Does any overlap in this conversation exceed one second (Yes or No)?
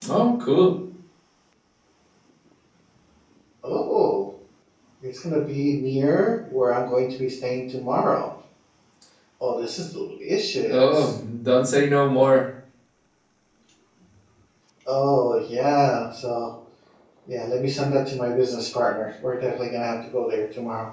No